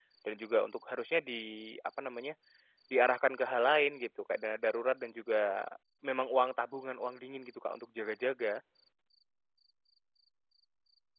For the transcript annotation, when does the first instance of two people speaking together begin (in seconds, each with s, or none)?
none